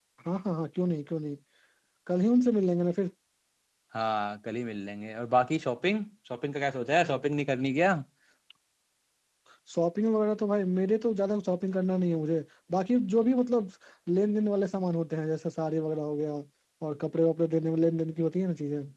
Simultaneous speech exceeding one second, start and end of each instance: none

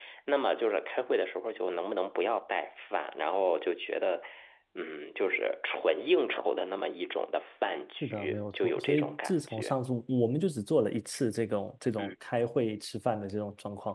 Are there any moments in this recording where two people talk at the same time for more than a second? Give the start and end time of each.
8.0-9.8

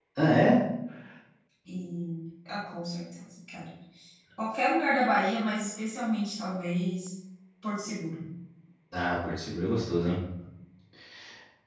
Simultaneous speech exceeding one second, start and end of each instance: none

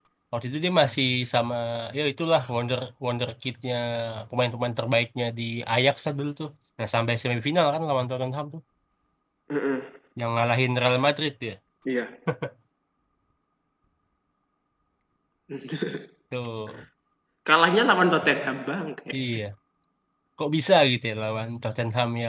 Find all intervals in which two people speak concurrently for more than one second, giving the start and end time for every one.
none

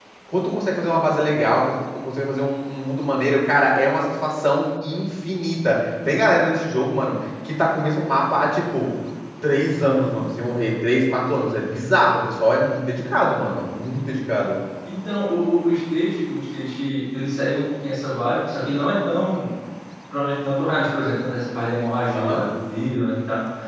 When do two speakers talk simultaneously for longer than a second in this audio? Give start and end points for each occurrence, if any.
none

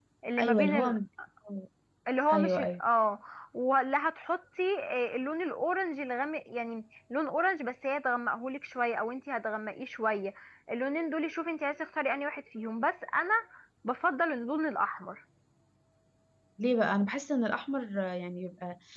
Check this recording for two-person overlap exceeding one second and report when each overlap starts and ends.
none

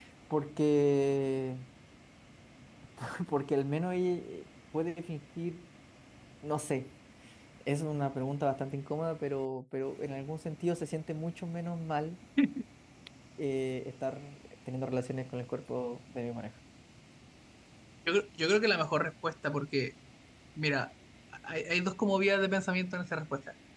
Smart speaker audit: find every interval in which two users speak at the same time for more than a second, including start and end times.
none

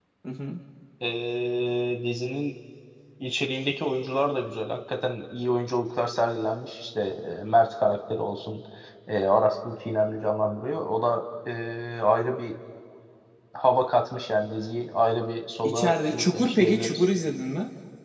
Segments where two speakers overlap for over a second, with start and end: 15.6-17.0

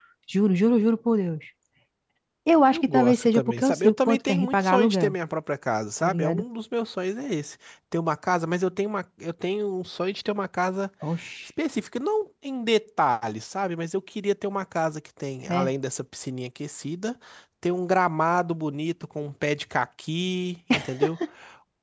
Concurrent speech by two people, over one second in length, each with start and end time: 2.7-5.1

